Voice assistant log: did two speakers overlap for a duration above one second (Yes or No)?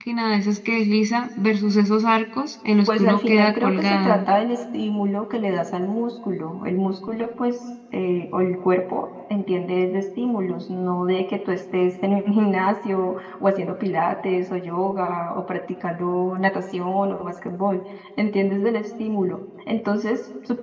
Yes